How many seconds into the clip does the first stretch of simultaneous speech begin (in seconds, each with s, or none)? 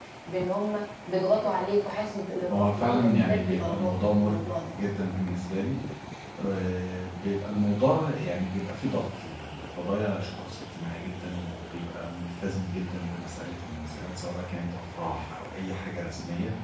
2.5 s